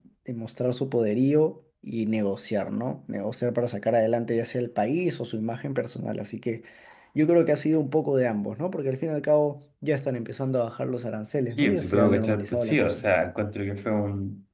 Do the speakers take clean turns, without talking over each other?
No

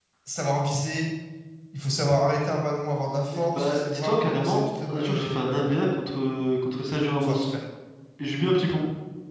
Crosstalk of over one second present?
Yes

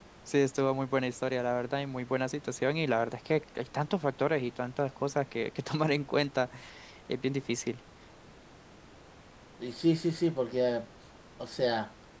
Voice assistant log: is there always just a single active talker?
Yes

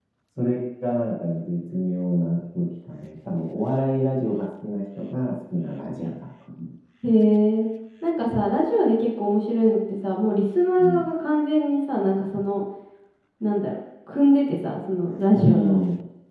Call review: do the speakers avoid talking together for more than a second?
Yes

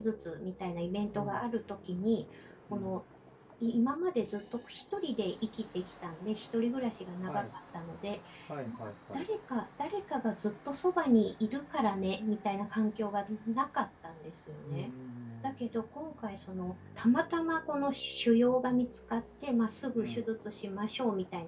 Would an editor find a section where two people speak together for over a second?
No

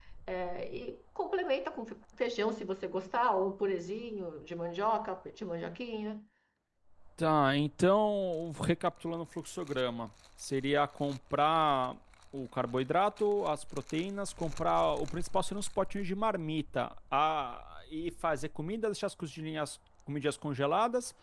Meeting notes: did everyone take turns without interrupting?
Yes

